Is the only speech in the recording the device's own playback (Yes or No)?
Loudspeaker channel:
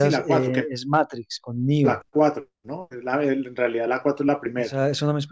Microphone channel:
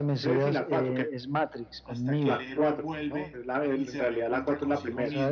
No